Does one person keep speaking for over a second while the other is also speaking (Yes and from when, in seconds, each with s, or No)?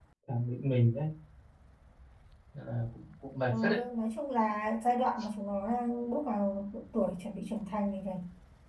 No